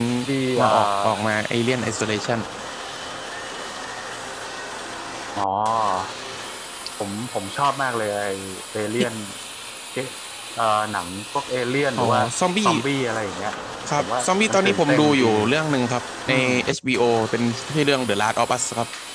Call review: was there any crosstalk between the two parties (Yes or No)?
Yes